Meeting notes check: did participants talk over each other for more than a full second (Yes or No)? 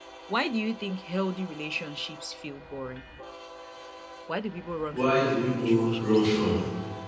Yes